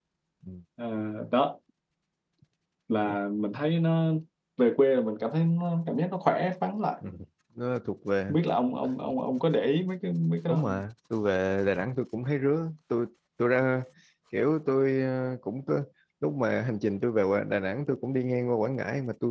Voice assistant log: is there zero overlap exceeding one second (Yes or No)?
Yes